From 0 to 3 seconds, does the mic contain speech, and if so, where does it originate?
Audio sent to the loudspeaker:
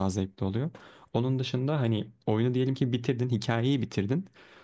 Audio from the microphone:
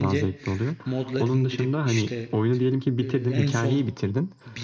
both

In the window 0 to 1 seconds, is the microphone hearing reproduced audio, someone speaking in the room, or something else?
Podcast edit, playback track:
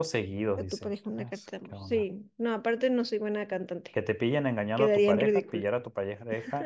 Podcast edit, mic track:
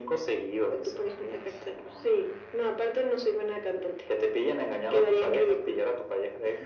echo only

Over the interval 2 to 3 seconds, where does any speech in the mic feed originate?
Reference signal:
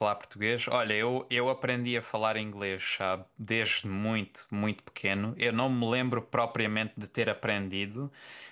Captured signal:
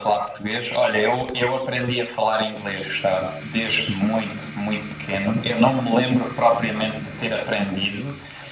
echo only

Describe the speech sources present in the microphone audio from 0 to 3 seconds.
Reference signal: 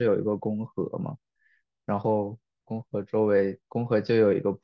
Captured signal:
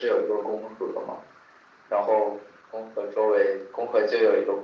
echo only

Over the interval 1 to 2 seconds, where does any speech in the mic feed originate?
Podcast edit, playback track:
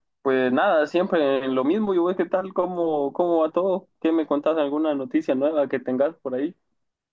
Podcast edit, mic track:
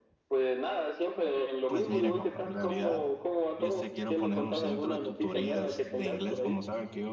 both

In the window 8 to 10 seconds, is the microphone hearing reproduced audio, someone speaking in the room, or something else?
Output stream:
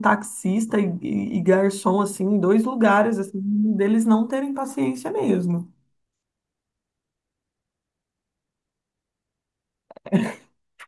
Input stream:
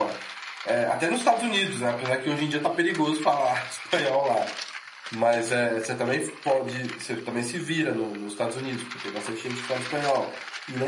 user only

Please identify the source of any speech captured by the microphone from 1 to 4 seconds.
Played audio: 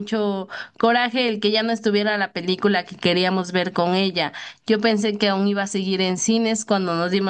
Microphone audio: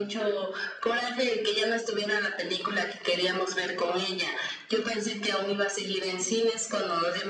echo only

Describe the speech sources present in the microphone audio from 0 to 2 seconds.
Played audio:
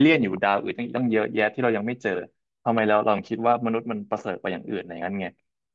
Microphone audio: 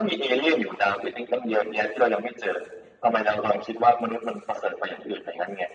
echo only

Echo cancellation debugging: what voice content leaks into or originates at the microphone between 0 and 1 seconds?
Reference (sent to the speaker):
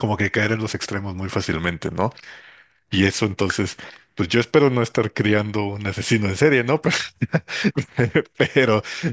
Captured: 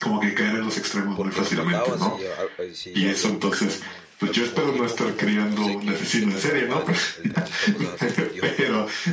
echo only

